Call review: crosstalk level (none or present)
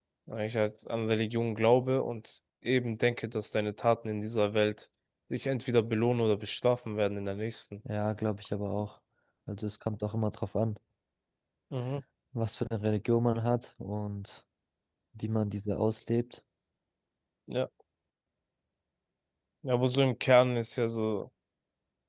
none